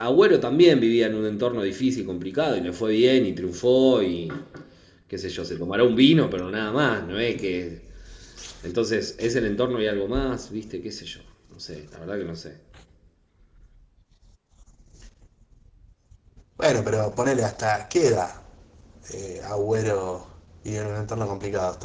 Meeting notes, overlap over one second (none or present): none